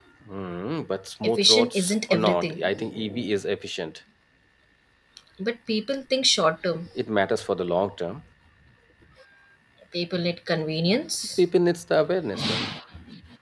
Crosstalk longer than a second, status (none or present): present